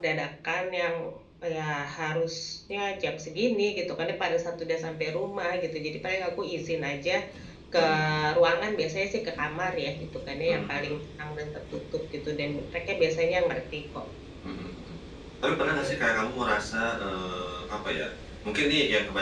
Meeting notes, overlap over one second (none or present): none